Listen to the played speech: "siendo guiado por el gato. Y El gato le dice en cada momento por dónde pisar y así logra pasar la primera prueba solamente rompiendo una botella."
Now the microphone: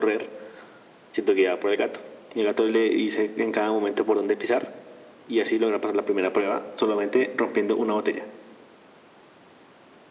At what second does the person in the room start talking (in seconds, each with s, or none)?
none